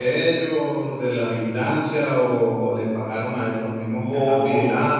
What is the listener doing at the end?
taking over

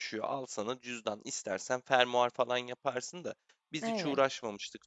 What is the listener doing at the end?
listening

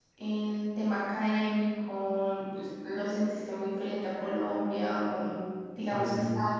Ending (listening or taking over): listening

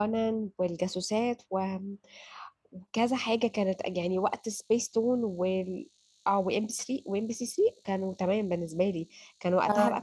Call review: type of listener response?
listening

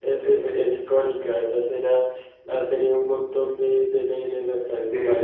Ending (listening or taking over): listening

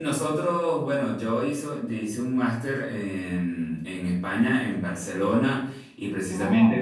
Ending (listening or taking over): listening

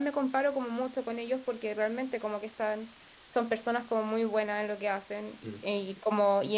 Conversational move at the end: listening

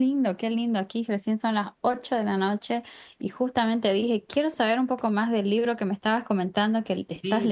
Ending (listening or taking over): taking over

